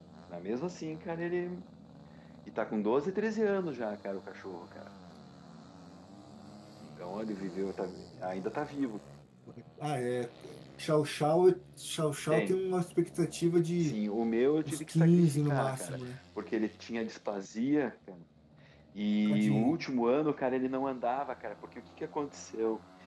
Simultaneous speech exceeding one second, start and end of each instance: 14.7-16.0

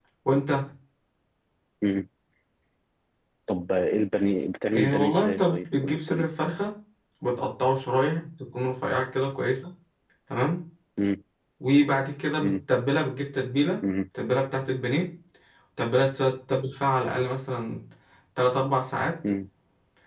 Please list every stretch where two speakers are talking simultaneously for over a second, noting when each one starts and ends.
4.8-6.2

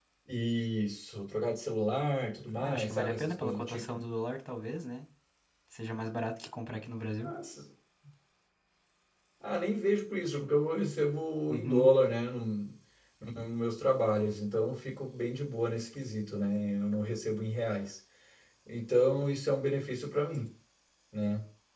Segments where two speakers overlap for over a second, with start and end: 2.6-3.8

